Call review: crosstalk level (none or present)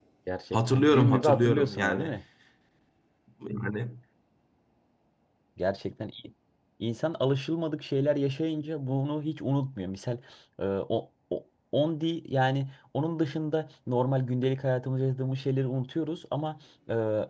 present